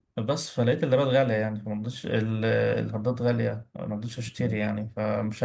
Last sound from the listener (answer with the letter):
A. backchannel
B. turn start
A